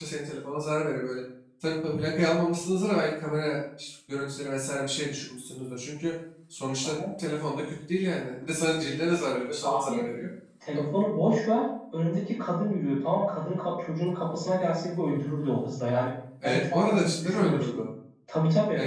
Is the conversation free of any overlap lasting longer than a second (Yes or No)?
No